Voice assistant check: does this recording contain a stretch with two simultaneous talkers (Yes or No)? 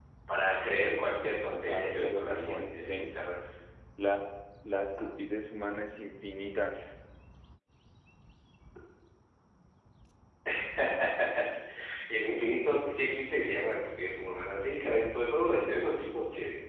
Yes